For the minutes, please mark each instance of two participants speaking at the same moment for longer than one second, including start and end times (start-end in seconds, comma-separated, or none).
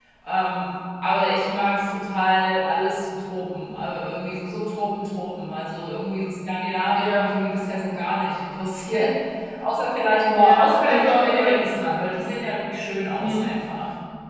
10.4-11.6